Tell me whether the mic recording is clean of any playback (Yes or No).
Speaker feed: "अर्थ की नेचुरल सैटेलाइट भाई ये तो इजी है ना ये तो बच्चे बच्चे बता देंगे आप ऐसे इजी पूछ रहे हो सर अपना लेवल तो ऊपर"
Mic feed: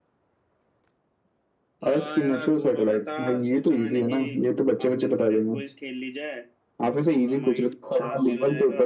No